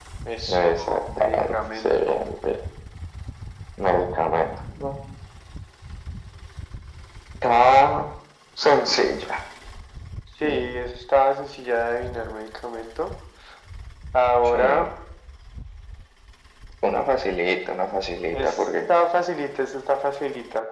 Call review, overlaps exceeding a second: present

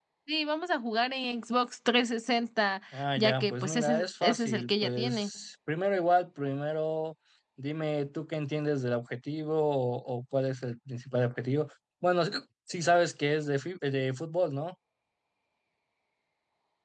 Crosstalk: present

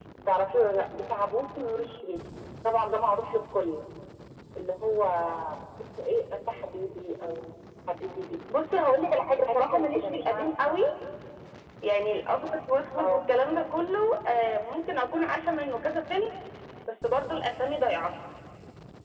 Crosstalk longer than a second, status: present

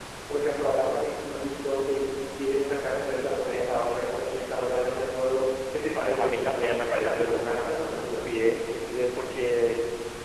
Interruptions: present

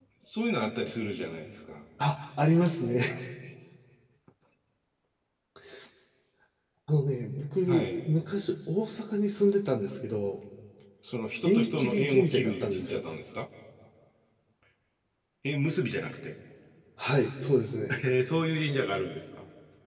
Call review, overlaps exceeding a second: present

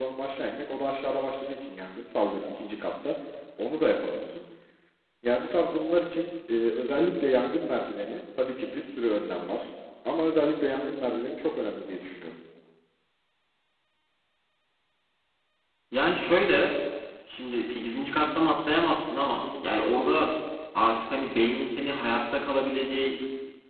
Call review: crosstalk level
none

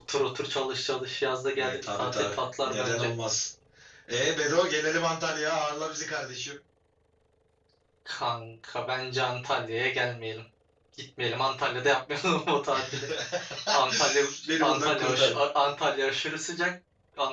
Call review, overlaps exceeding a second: present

